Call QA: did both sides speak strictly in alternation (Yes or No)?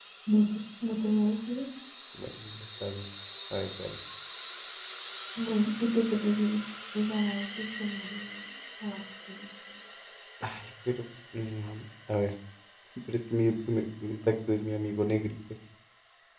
Yes